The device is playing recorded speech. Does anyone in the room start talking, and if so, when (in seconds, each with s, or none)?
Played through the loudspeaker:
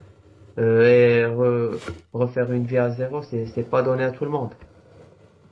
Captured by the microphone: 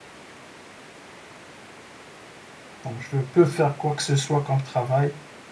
2.8 s